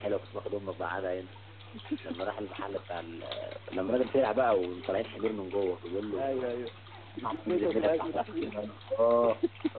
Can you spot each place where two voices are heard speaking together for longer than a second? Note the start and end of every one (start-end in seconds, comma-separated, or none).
7.2-8.5